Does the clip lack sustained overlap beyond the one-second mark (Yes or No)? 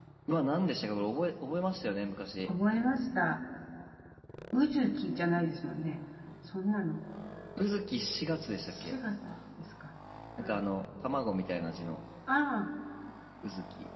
Yes